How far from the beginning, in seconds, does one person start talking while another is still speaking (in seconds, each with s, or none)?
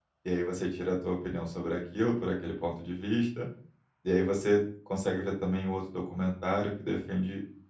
none